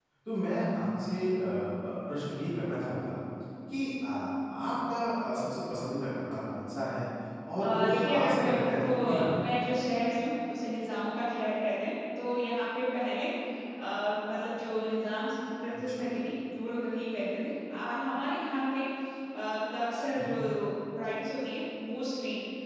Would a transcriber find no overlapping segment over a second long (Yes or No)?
No